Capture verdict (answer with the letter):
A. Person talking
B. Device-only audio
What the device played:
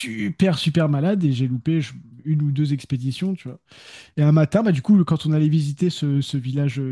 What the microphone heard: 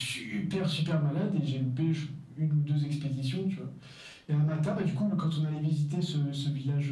B